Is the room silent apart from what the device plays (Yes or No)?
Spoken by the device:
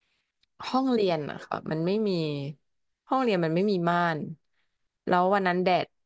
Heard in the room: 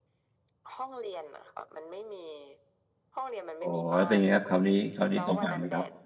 No